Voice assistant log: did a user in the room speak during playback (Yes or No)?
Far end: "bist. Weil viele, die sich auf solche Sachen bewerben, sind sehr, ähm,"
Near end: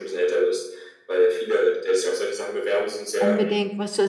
Yes